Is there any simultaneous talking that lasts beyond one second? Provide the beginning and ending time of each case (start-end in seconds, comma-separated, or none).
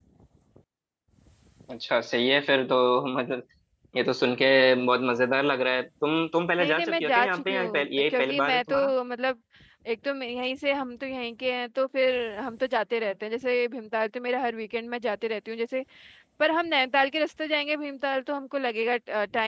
6.6-8.9